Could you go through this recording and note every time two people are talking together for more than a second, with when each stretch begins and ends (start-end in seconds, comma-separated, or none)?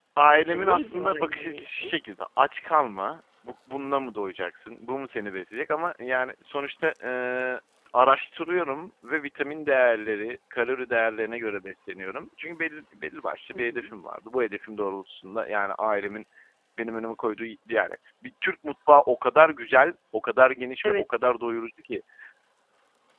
0.5-1.9